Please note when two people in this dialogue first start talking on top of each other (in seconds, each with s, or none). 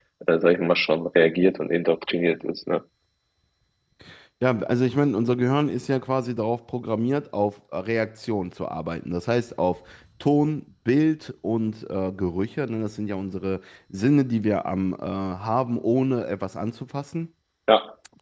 none